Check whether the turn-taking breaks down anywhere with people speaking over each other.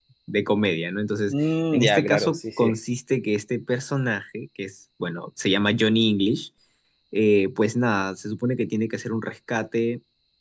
Yes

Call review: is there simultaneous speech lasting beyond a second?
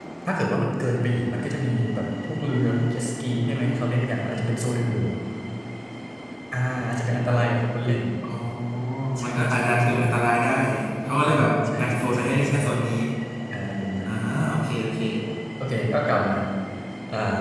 Yes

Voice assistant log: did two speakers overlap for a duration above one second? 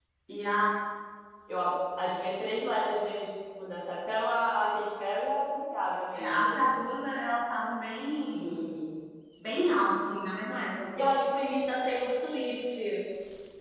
No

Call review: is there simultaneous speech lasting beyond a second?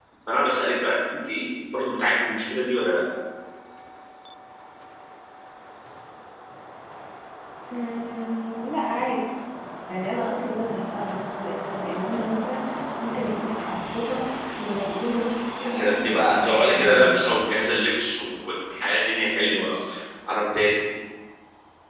Yes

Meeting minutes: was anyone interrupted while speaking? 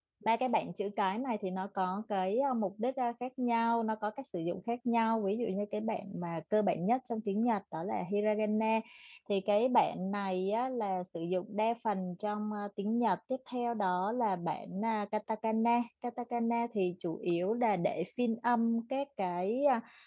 No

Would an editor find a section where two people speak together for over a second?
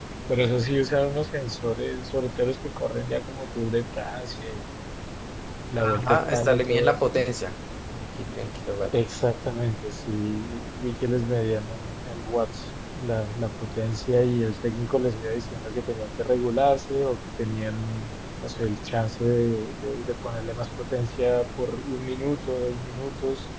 Yes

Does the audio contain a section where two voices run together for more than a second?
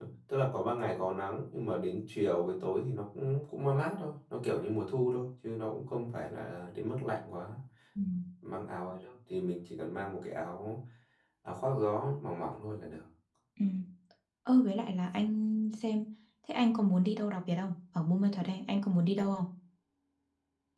No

